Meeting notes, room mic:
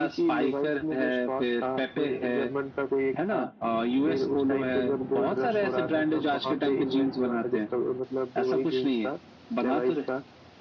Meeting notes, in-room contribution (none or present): none